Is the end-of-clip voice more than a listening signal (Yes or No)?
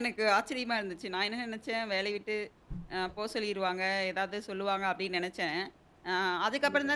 No